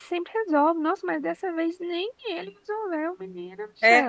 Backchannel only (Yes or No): No